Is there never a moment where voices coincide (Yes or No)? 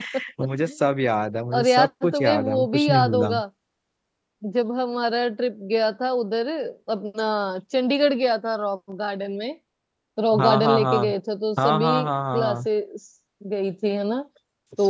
No